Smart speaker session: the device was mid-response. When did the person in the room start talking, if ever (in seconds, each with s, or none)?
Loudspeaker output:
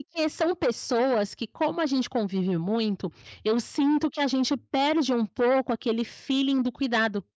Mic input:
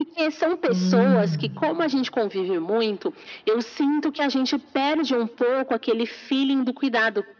0.7 s